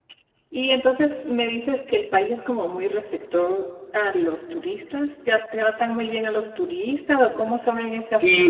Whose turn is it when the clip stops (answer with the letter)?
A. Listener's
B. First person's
A